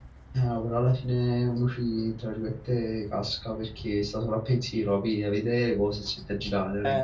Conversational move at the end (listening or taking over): taking over